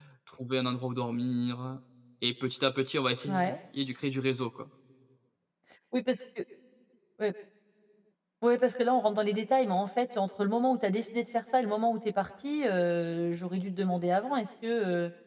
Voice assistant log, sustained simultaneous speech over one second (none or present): none